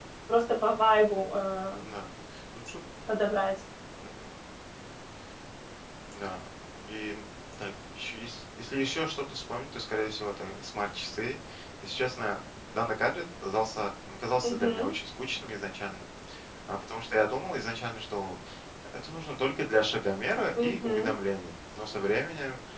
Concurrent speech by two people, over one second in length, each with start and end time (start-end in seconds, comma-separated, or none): none